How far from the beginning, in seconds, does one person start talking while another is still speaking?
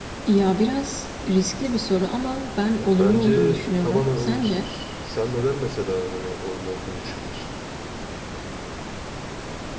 2.8 s

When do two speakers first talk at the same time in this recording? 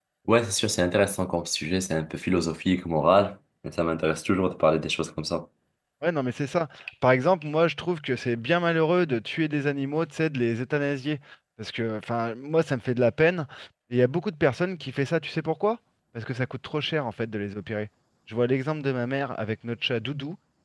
none

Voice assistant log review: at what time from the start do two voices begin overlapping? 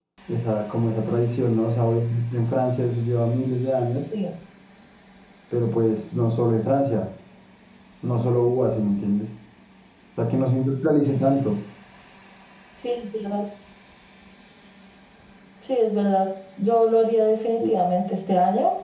none

